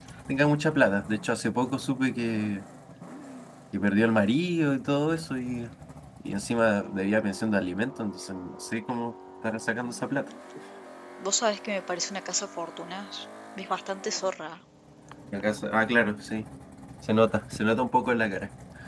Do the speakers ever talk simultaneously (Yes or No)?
No